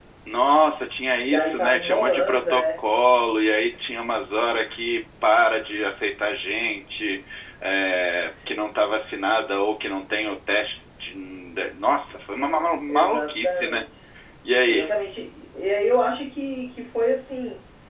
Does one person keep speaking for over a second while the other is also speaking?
Yes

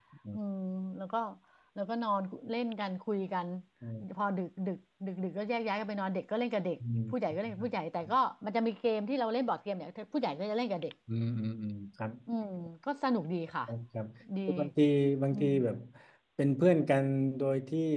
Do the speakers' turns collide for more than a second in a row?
No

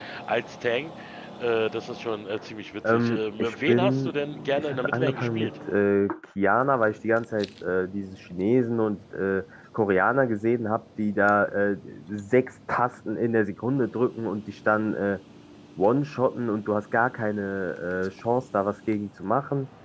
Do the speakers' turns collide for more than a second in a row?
Yes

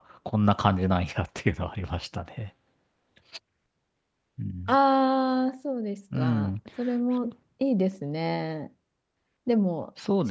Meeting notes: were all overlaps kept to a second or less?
Yes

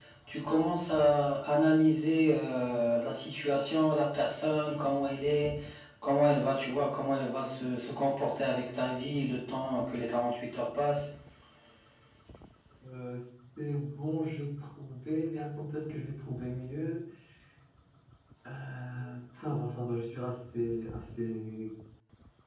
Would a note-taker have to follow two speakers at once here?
No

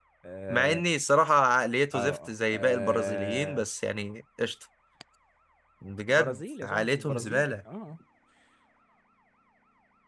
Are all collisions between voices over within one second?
No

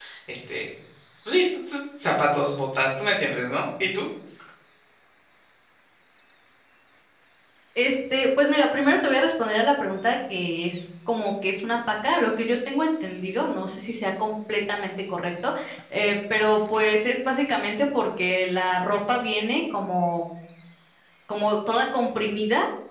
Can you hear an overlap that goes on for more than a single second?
No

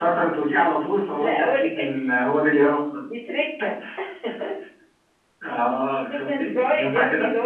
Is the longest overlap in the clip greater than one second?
Yes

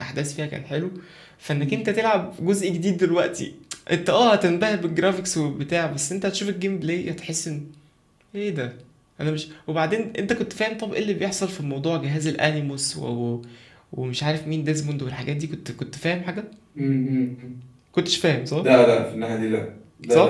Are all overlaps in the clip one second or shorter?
Yes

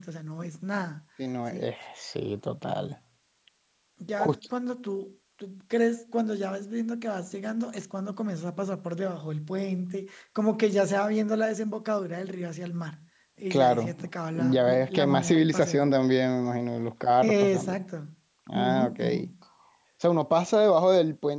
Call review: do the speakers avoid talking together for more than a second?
No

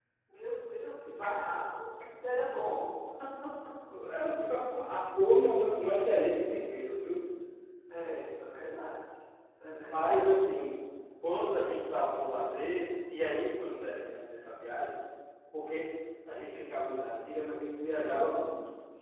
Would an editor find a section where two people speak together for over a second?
No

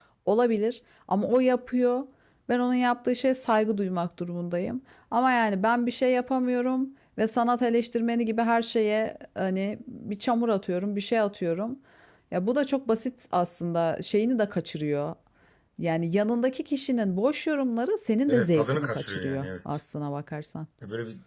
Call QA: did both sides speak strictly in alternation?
No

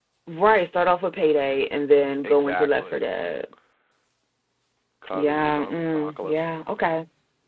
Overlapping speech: Yes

